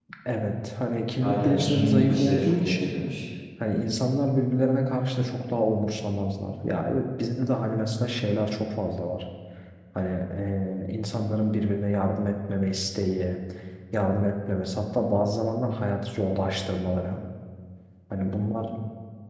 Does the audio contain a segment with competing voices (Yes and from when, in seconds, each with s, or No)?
Yes, from 1.2 s